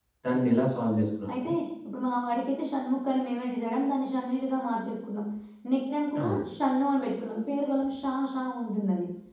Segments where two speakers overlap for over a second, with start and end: none

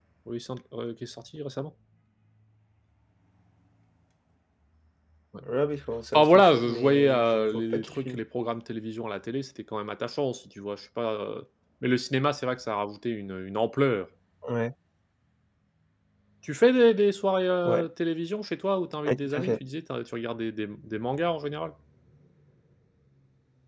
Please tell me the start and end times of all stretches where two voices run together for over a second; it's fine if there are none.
6.1-8.2

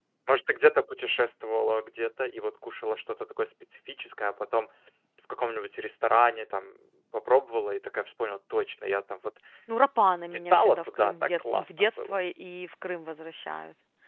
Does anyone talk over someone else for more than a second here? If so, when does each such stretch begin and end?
10.3-12.2

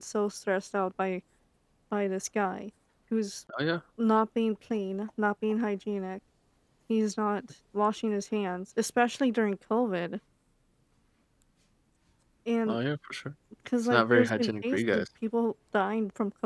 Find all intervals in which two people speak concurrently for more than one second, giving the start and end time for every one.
13.8-15.0

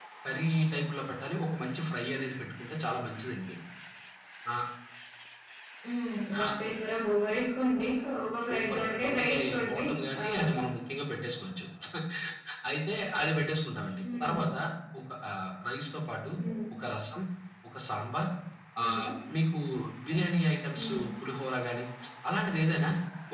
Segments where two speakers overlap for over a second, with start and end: 8.4-9.8

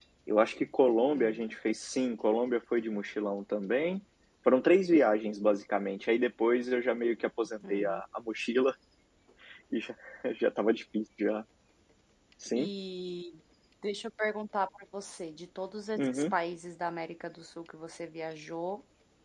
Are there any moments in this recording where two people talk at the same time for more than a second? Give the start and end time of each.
none

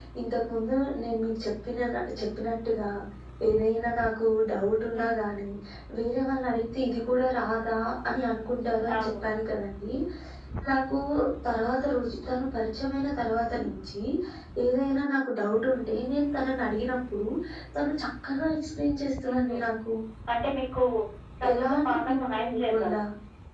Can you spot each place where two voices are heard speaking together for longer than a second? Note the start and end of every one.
21.5-23.0

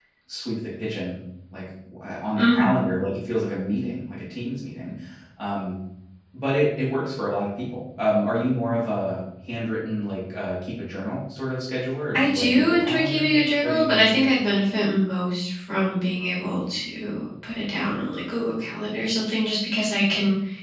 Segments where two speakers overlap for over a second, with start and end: 12.1-14.1

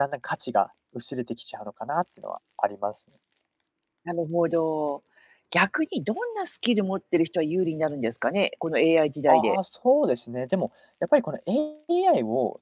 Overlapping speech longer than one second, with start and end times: none

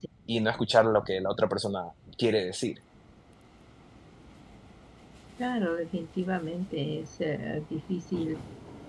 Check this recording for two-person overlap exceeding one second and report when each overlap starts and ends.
none

